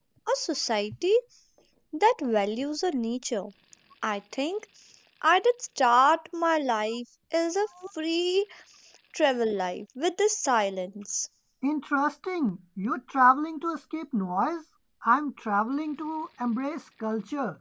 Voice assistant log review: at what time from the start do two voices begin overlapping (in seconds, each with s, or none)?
none